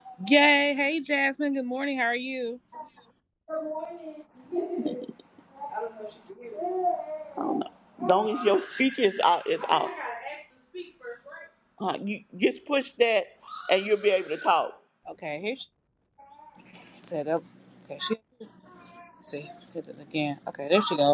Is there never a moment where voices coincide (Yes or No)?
Yes